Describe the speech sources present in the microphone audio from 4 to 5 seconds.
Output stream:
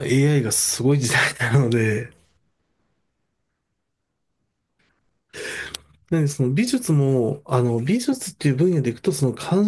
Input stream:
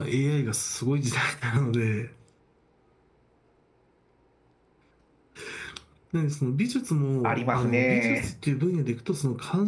neither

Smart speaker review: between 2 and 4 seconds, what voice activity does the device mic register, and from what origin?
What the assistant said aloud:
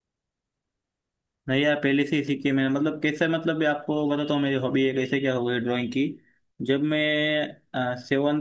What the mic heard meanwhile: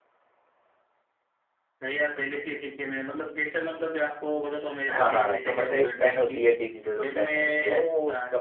echo only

